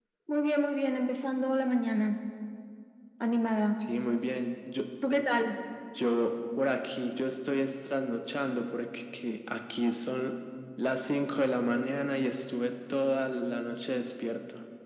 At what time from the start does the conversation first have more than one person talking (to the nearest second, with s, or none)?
none